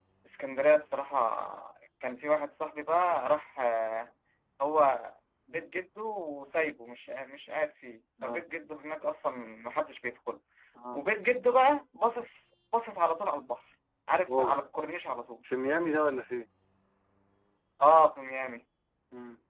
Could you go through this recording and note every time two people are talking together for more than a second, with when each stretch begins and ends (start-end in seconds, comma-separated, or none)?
none